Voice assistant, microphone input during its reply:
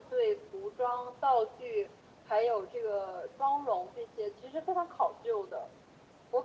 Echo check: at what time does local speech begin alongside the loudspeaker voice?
none

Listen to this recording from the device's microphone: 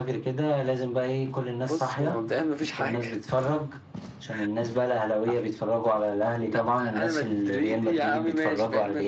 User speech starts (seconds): none

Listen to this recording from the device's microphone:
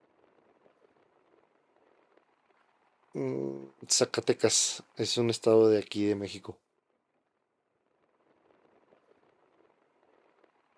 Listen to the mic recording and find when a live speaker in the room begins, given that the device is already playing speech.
3.1 s

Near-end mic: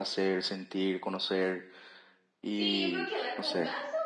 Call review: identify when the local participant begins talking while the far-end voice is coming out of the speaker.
2.5 s

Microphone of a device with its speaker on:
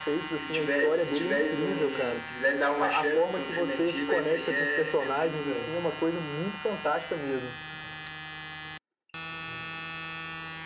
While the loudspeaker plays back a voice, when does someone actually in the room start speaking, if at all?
none

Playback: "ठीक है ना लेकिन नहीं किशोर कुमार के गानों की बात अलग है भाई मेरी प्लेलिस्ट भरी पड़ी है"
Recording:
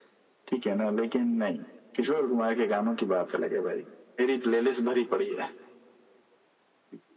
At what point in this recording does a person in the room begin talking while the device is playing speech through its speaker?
none

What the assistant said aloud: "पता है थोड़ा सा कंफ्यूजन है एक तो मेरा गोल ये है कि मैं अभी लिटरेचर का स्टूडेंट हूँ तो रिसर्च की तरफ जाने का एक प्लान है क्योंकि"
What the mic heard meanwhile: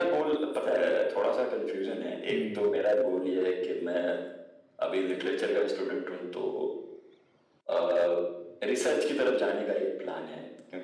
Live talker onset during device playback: 2.3 s

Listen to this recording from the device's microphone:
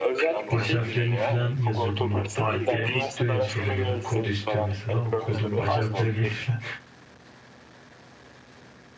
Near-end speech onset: 0.5 s

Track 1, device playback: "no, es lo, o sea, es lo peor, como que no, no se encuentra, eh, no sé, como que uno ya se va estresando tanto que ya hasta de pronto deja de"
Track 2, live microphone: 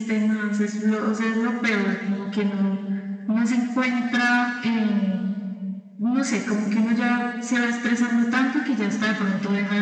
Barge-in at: none

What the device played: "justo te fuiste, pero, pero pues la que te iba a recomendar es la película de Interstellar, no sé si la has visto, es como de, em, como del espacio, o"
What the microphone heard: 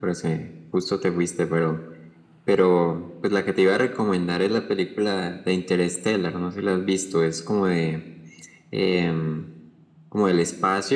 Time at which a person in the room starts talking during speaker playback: none

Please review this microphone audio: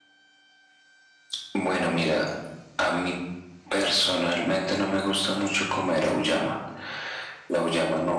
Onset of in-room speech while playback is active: none

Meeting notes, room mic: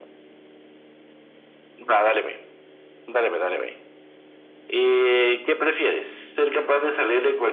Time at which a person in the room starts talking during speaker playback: none

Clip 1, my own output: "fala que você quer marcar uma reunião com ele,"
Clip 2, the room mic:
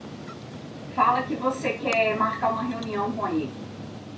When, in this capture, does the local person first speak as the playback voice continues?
none

